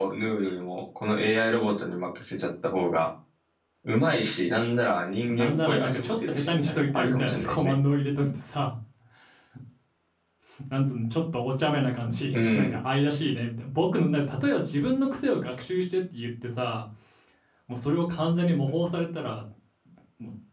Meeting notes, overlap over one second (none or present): present